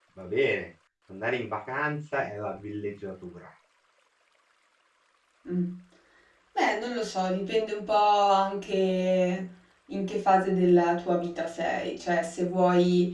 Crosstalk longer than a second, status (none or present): none